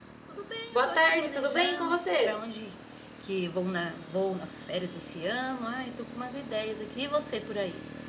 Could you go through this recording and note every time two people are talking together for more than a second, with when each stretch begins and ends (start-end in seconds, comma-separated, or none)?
0.7-2.4